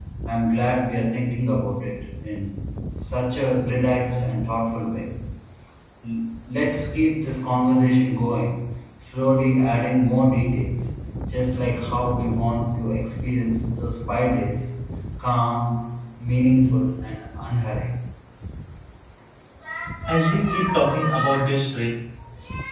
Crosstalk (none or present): none